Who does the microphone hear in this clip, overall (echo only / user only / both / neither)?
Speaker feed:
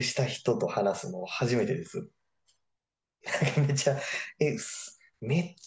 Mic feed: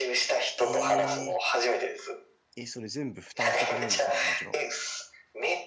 both